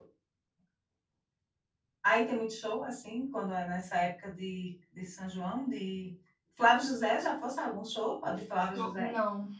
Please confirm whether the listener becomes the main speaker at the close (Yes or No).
Yes